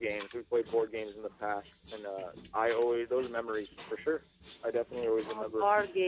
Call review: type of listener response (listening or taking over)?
taking over